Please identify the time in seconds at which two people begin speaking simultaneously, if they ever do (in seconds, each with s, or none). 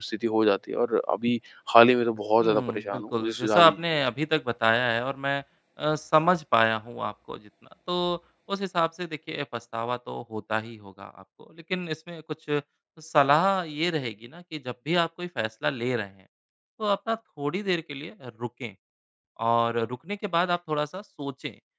2.4 s